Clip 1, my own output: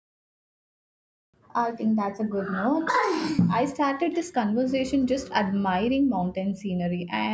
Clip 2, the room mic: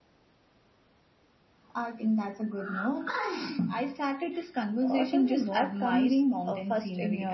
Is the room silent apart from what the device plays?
No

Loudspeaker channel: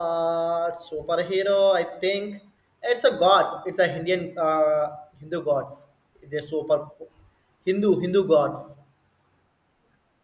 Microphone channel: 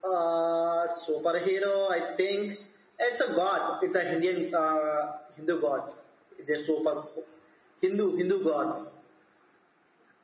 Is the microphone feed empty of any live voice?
Yes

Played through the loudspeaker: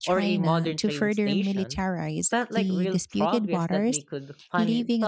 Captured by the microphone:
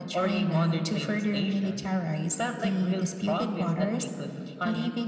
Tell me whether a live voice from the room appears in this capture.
No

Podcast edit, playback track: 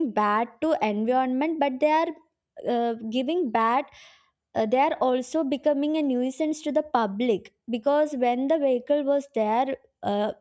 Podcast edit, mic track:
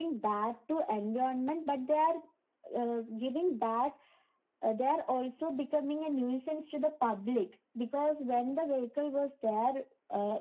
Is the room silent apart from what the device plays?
Yes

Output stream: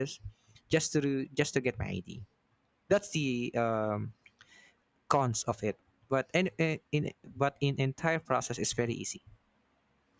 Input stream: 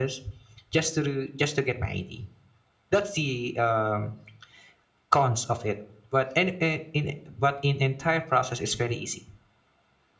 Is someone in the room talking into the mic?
No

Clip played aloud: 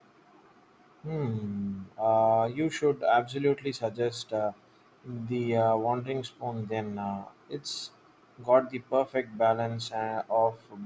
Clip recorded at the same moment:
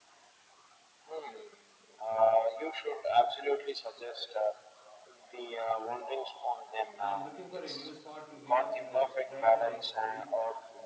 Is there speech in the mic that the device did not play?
Yes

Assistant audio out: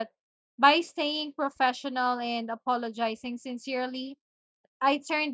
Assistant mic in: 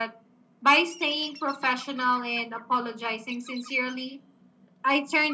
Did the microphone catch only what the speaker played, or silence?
Yes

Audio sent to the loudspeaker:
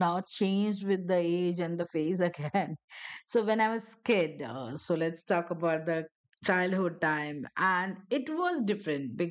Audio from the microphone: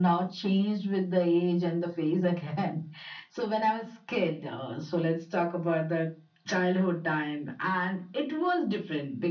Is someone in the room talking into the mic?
No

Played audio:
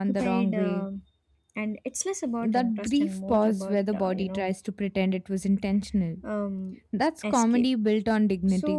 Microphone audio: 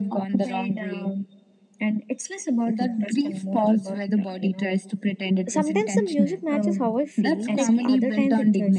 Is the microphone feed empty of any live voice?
No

